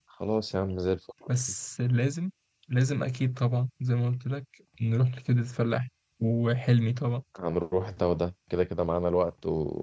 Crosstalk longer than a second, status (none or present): none